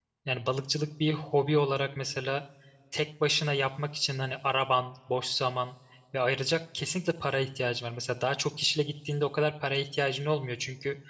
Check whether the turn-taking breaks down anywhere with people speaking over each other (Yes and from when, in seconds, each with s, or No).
No